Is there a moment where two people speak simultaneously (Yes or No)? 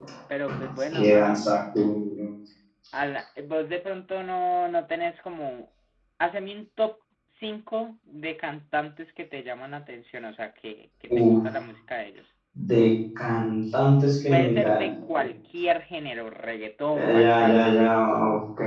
Yes